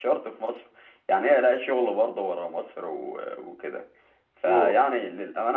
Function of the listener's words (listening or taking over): listening